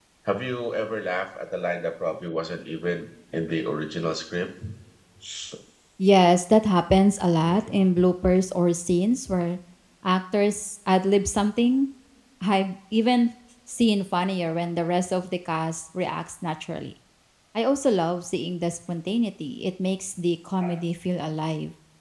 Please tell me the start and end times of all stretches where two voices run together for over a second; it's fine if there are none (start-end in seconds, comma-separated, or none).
none